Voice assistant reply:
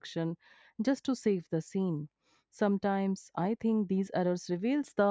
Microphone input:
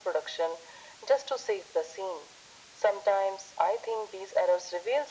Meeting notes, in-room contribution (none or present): none